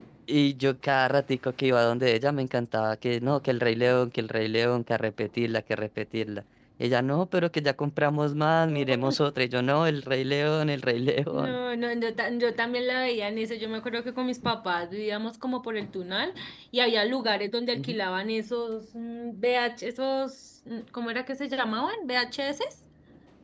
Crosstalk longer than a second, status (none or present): none